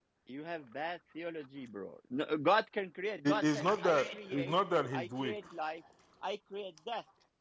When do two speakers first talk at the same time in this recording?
3.2 s

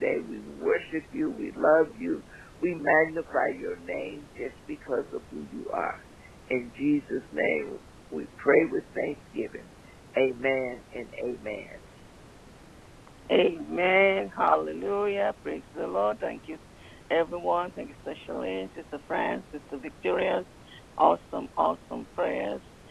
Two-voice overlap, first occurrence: none

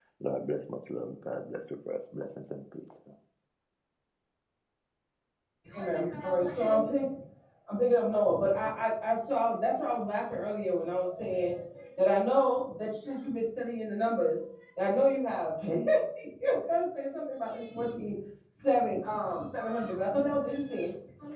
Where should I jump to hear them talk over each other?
none

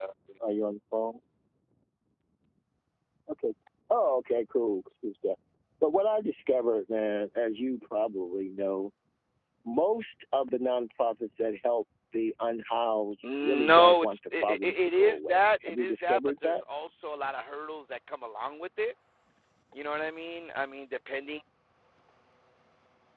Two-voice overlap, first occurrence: 13.2 s

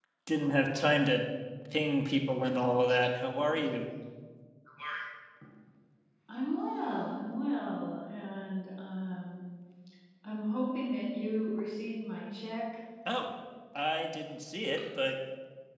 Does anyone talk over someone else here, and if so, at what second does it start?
none

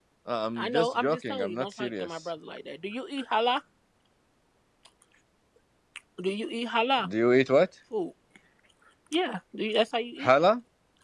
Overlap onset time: 0.6 s

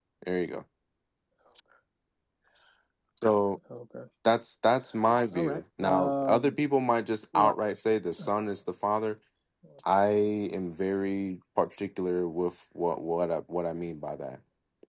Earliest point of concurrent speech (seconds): 5.3 s

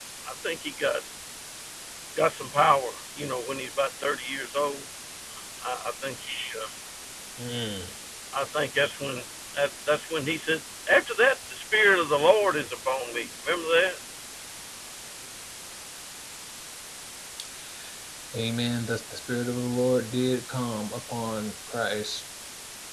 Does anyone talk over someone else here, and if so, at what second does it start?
none

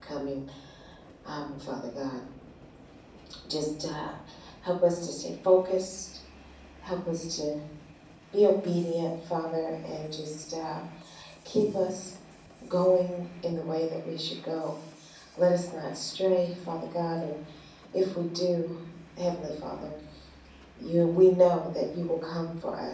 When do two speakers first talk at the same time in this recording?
none

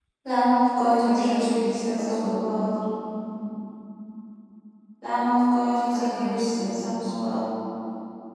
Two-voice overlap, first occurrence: 1.0 s

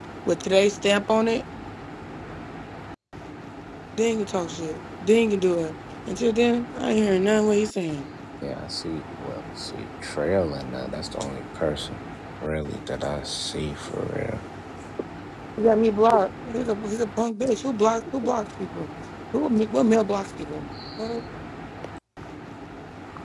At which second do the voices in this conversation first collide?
none

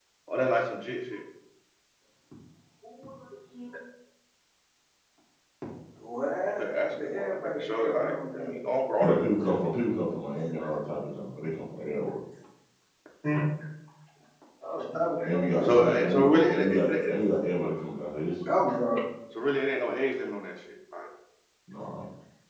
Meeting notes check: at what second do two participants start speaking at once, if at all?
6.5 s

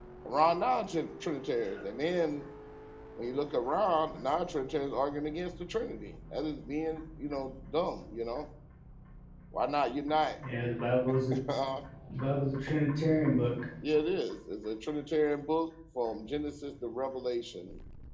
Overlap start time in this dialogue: none

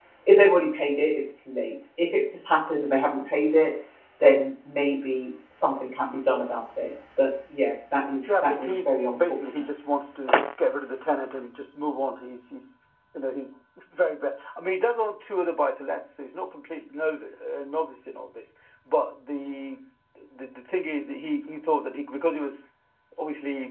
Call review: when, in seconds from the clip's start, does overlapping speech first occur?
8.2 s

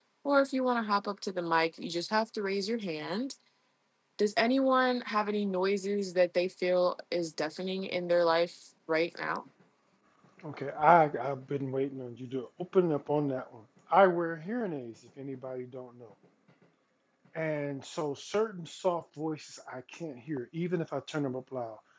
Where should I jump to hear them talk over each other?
none

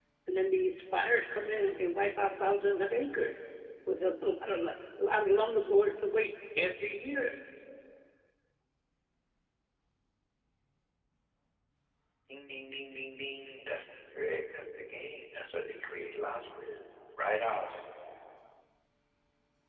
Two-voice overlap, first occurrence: none

